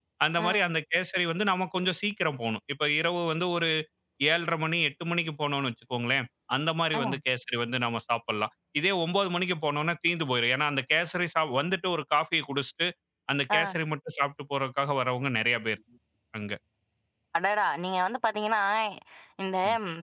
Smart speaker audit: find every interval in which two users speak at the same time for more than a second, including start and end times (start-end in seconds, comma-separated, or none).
none